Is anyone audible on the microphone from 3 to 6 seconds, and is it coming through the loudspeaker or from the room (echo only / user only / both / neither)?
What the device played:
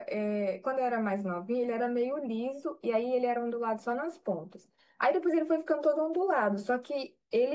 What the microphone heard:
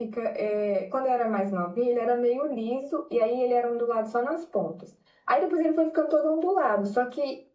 echo only